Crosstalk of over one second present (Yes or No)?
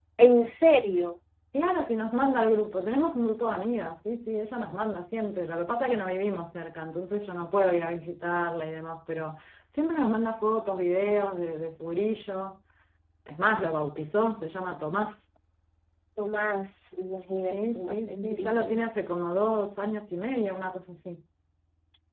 Yes